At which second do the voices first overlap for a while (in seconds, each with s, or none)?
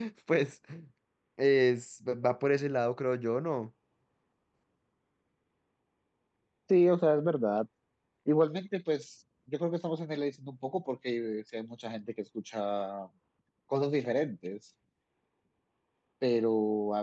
none